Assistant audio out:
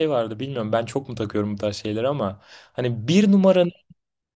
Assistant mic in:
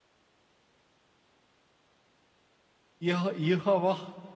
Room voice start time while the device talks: 3.0 s

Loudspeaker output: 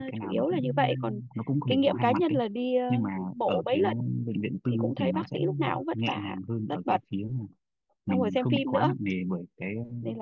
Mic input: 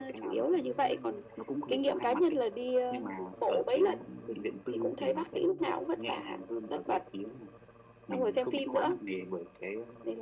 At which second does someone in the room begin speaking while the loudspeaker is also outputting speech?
none

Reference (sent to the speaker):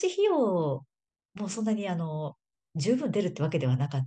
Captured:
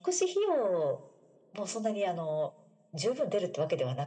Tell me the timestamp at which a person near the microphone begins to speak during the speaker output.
none

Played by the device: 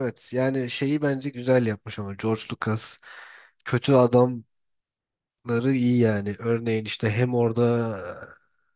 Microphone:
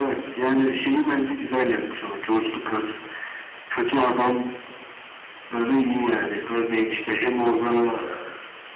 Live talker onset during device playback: none

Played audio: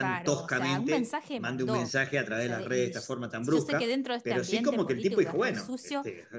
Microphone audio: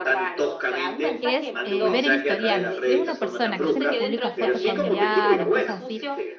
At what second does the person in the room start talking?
1.2 s

